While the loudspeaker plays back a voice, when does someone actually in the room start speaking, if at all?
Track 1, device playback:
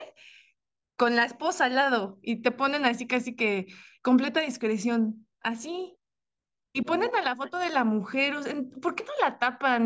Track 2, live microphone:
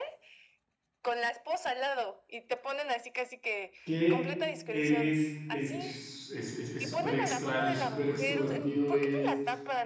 3.8 s

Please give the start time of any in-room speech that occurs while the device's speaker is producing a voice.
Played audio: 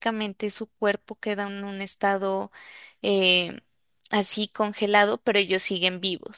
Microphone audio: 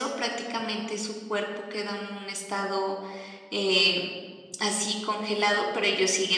none

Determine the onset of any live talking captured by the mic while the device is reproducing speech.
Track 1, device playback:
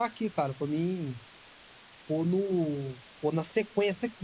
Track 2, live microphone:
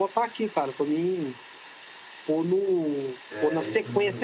3.3 s

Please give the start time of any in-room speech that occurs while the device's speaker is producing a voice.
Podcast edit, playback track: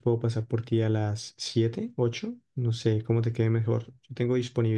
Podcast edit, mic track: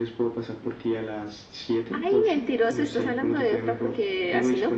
1.9 s

